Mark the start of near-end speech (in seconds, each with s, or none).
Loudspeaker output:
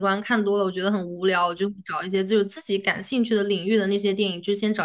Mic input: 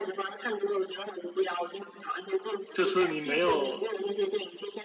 2.7 s